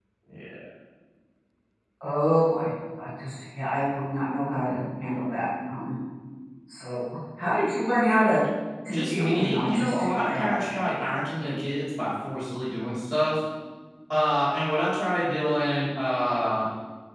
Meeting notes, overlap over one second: present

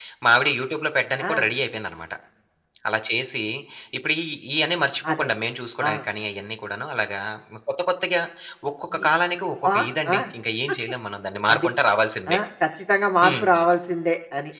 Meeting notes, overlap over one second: none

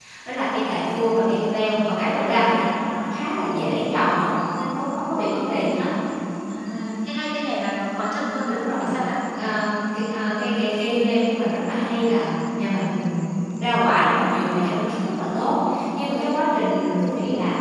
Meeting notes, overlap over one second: none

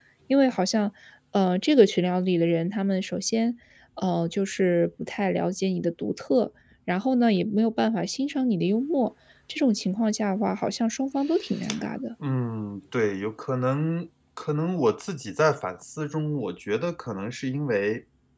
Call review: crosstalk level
none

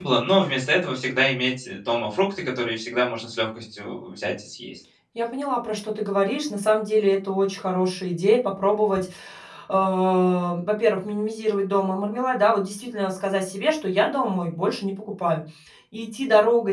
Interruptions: none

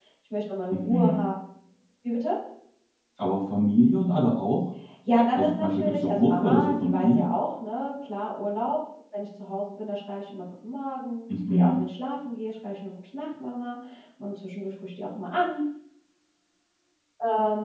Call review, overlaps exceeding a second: present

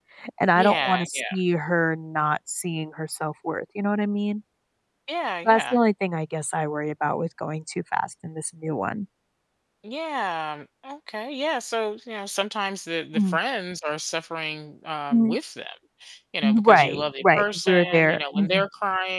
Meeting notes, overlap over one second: present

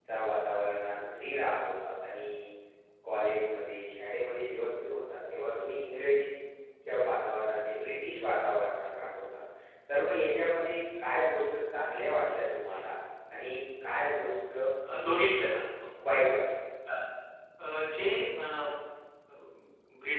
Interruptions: none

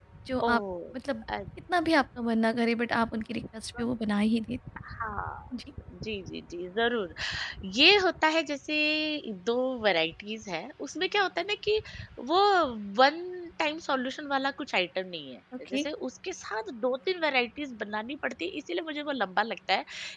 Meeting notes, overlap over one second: none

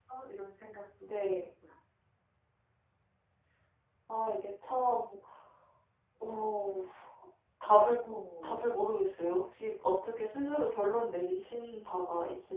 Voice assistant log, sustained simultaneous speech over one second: none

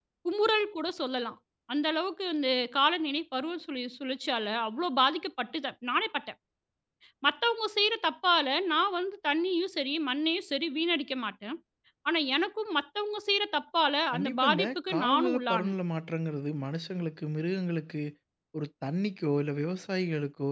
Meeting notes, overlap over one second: present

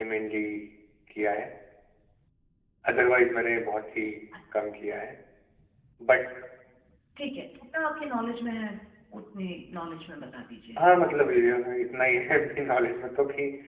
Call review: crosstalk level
none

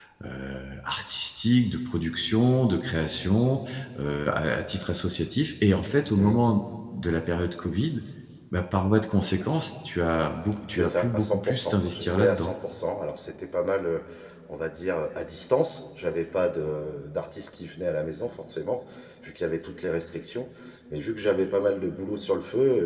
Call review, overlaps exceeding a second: present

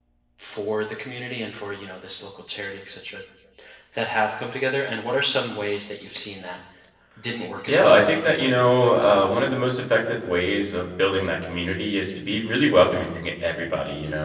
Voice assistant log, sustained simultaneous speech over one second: present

